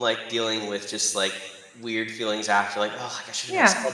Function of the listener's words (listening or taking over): listening